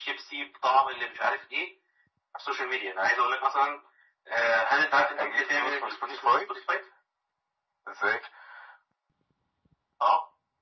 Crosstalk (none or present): present